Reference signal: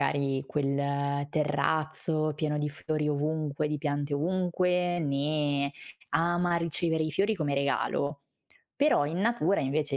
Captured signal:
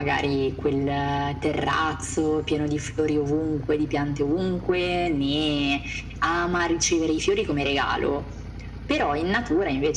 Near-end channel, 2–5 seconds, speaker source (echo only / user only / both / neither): echo only